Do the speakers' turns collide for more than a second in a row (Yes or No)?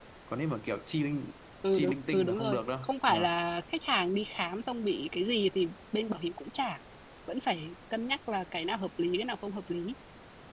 Yes